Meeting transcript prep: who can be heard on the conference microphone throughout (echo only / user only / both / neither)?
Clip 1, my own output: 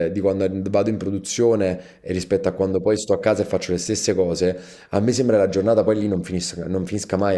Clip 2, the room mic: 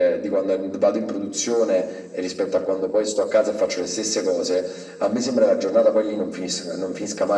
echo only